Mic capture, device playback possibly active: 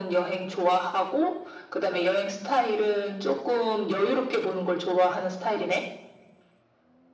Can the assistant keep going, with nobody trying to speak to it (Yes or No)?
Yes